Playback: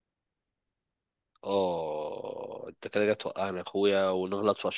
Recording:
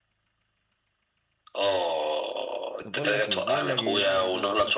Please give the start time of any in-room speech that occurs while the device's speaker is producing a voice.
2.8 s

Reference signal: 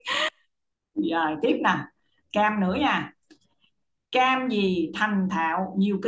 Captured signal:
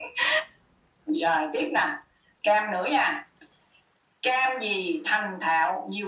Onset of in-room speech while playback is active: none

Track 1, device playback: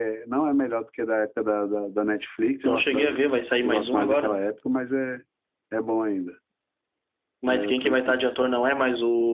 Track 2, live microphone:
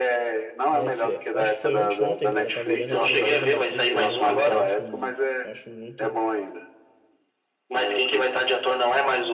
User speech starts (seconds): 0.7 s

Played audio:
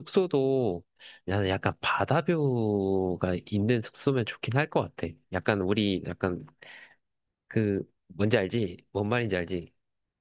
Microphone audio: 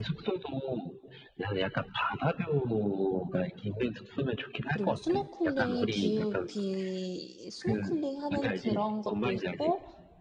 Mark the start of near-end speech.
4.7 s

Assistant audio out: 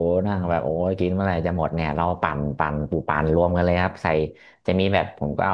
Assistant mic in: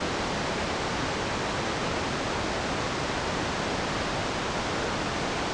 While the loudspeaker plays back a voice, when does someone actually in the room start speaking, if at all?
none

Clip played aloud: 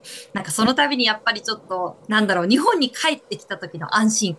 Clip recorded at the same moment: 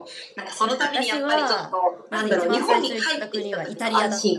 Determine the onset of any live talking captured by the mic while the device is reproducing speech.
0.8 s

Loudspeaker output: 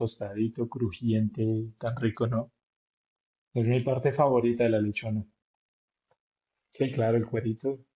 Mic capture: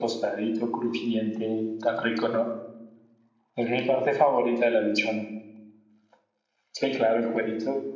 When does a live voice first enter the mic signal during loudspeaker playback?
none

